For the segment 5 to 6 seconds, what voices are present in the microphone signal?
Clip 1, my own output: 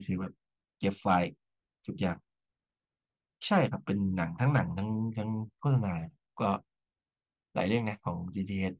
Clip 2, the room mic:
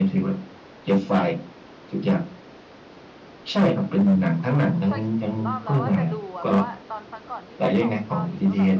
both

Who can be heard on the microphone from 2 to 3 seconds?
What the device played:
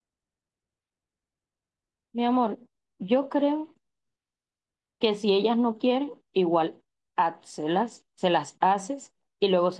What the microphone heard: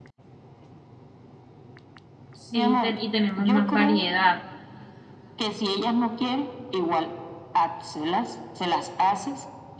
both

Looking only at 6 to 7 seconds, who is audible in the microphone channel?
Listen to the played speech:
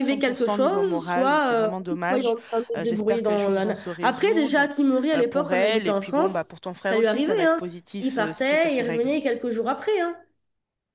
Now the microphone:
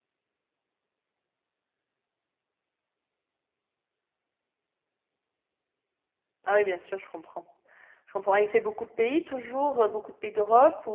user only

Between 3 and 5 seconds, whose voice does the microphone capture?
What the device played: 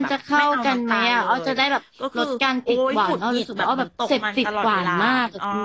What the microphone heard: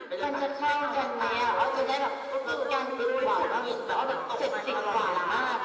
both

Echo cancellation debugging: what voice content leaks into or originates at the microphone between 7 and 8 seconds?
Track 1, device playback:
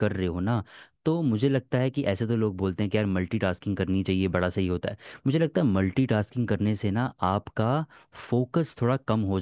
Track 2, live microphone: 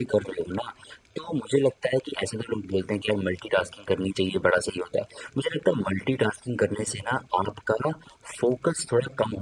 echo only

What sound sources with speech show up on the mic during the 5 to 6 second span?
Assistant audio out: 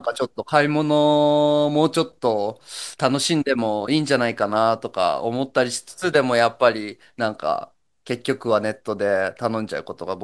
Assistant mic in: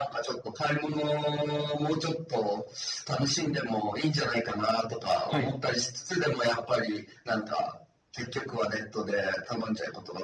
both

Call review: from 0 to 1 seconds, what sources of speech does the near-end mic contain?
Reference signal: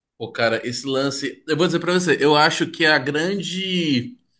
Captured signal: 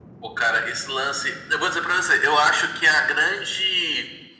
echo only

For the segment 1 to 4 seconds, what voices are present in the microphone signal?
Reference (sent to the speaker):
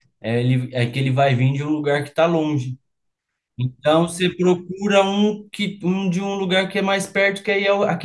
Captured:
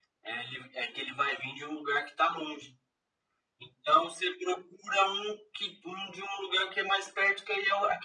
echo only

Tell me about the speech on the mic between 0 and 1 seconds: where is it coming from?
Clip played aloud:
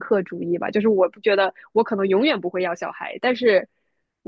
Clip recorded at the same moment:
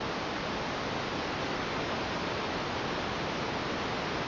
neither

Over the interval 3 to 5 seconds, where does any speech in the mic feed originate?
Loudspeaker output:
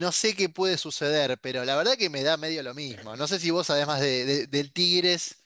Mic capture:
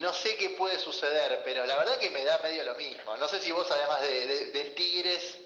echo only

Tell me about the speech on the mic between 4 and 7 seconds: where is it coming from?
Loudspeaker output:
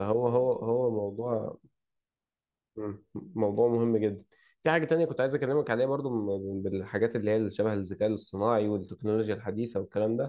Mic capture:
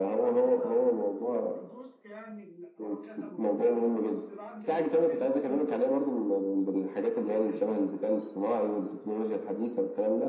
both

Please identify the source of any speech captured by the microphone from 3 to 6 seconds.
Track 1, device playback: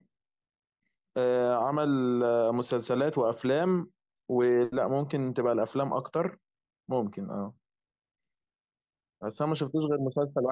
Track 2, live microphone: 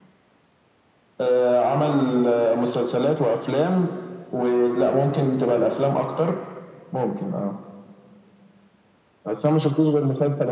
echo only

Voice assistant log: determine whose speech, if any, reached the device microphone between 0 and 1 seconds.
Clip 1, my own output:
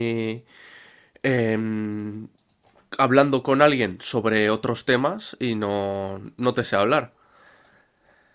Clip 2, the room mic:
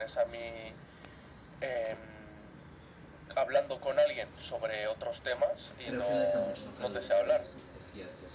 echo only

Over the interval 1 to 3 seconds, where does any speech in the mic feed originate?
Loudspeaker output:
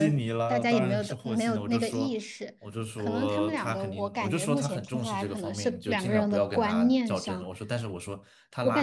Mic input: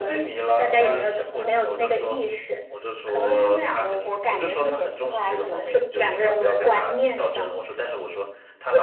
echo only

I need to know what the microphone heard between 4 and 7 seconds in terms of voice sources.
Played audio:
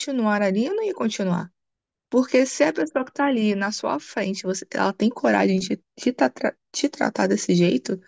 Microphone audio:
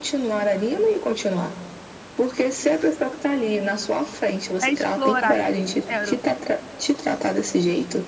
both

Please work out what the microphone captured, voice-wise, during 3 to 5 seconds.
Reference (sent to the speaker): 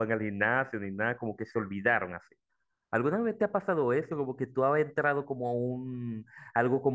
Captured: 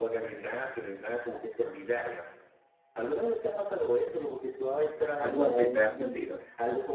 echo only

